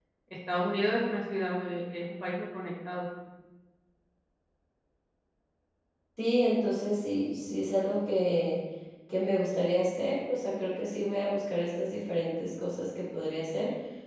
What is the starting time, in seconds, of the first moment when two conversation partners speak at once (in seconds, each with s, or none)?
none